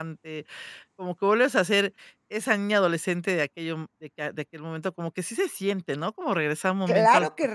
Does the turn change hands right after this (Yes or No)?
Yes